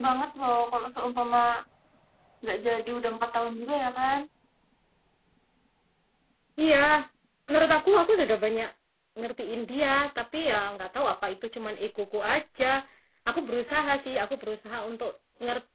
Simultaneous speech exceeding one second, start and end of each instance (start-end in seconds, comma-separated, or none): none